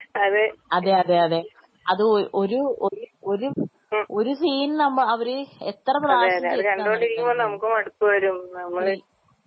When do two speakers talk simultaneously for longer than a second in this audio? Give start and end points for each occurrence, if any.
6.1-7.6

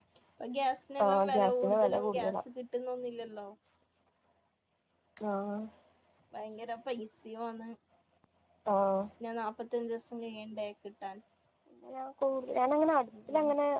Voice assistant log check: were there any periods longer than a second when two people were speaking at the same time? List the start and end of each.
1.1-2.4

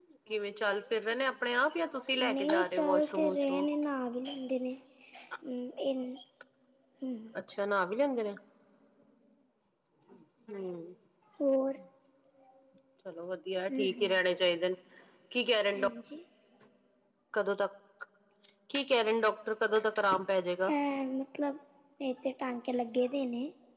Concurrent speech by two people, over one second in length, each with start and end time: 2.3-3.6

